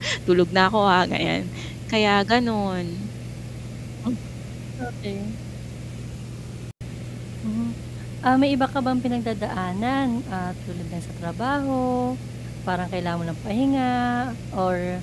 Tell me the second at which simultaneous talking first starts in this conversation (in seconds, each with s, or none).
none